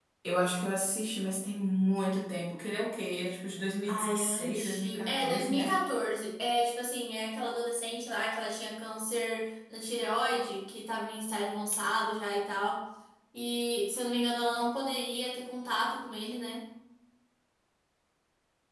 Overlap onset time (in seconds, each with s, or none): 3.9 s